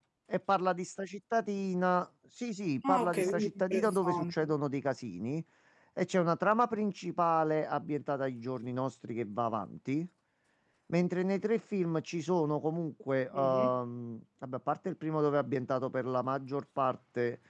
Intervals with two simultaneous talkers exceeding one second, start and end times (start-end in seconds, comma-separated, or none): 2.9-4.5